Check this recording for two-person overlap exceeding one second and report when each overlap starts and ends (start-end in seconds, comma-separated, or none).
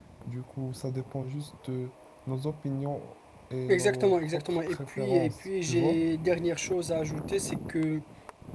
3.7-6.0